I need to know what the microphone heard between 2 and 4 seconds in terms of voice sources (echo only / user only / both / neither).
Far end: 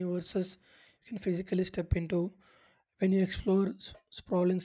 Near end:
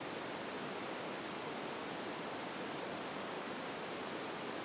neither